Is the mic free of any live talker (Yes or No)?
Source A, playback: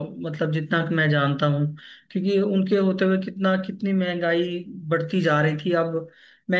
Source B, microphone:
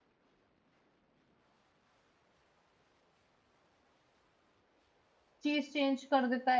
No